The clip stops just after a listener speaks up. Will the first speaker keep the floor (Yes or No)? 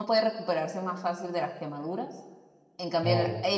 Yes